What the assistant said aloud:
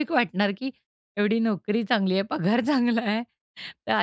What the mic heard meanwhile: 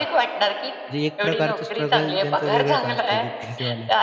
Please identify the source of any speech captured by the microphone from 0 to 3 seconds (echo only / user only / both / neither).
both